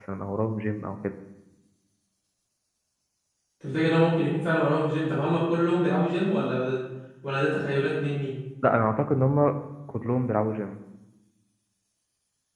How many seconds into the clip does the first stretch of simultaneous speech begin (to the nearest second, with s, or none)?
none